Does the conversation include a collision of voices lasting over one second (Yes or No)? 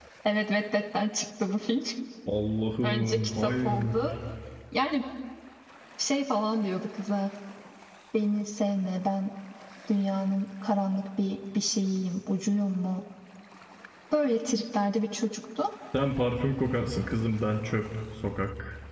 Yes